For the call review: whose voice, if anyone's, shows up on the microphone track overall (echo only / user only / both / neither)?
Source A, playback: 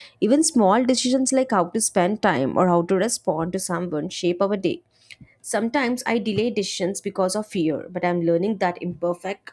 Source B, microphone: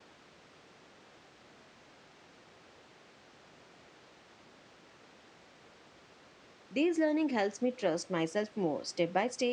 user only